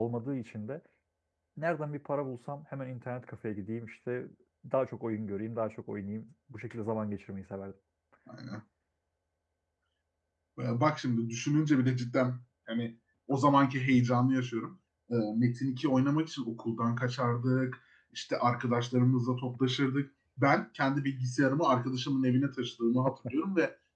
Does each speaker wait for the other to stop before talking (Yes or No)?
Yes